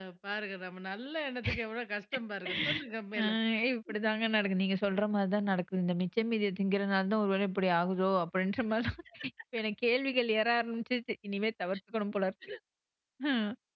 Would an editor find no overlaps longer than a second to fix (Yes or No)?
Yes